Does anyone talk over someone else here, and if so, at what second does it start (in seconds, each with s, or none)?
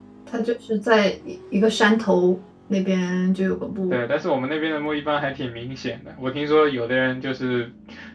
none